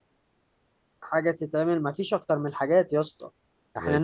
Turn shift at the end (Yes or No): No